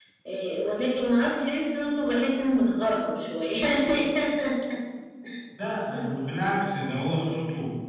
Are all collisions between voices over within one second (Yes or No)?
Yes